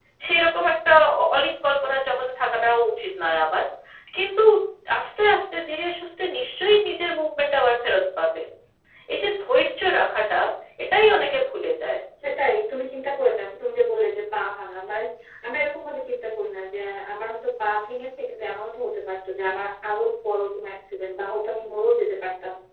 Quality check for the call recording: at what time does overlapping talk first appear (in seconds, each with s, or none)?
none